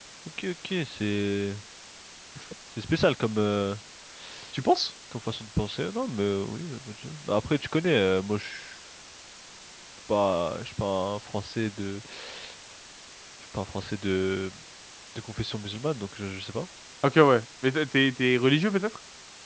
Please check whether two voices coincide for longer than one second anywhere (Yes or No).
No